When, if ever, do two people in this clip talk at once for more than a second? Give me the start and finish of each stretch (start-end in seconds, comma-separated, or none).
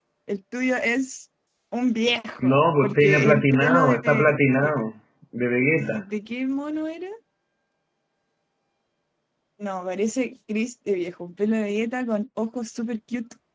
2.4-4.3